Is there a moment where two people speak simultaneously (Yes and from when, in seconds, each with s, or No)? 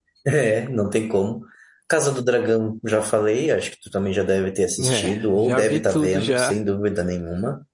Yes, from 4.8 s